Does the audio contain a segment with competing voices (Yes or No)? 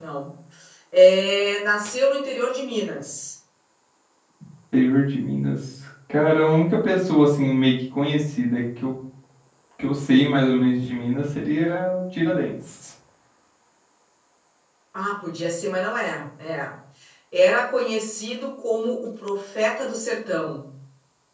No